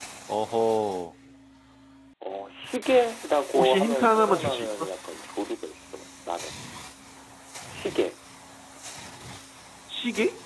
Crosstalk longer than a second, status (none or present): present